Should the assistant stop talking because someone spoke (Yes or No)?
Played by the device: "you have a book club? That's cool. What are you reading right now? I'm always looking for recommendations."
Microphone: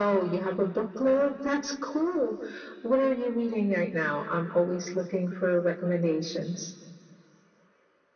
No